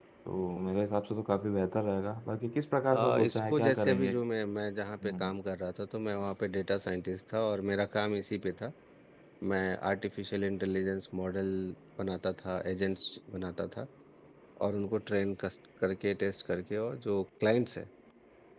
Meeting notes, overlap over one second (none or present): present